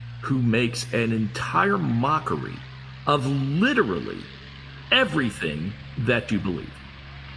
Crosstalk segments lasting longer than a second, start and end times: none

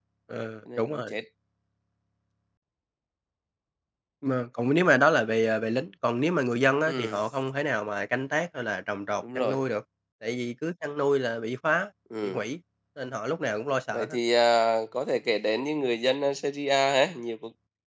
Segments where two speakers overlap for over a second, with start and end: none

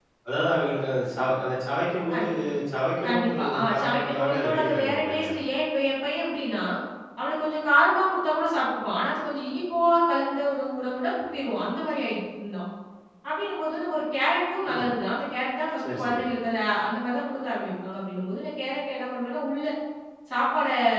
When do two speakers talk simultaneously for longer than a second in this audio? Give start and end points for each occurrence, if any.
3.1-5.3

